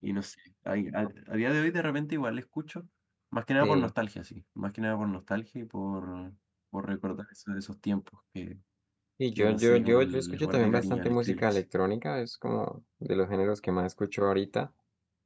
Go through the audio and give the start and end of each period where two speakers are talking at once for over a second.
9.4-11.6

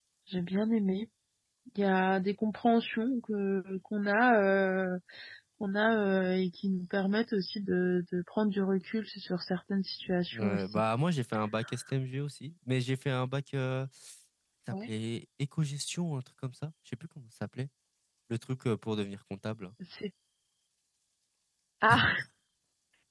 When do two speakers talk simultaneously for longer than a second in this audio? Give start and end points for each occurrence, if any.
none

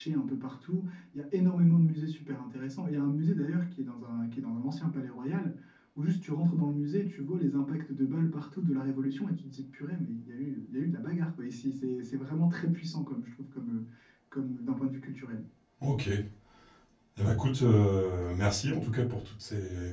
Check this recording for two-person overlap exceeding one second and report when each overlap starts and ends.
none

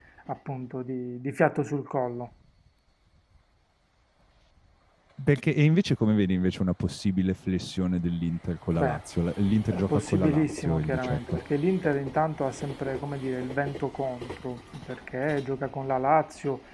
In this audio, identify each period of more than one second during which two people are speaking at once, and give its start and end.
9.7-11.4

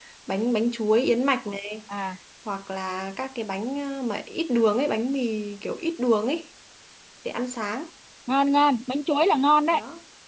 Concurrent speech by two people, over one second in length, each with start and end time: none

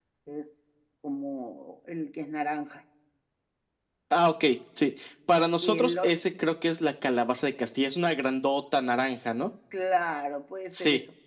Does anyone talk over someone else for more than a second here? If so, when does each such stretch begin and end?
none

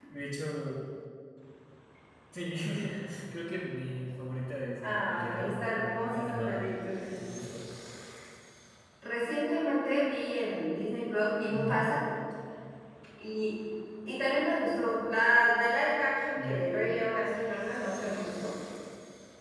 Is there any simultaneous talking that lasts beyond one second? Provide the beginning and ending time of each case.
4.8-6.7

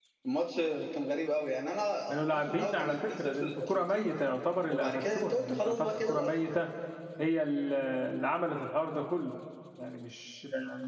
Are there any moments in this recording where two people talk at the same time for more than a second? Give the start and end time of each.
2.1-4.1, 4.7-6.4

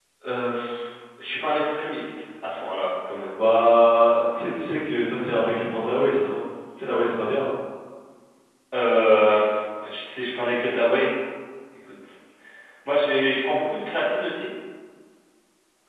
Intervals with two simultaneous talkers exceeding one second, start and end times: none

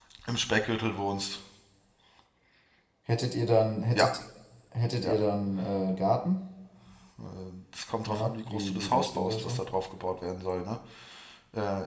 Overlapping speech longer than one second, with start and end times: 8.1-9.7

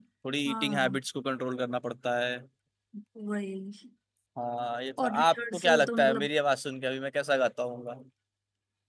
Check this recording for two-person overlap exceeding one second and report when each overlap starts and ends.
5.0-6.3

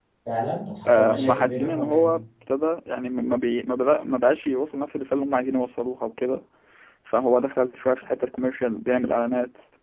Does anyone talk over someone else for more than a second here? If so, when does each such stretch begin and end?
0.9-2.1

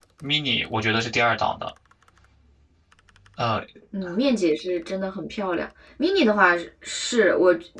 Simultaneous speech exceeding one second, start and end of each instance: none

